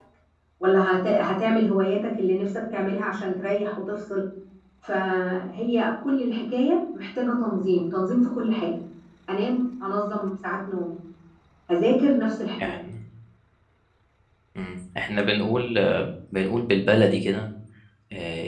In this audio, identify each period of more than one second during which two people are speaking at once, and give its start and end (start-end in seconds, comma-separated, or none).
none